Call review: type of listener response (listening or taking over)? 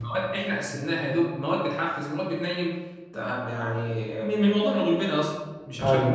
listening